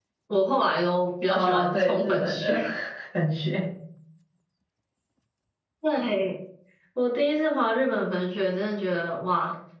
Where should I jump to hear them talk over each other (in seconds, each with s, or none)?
1.3 s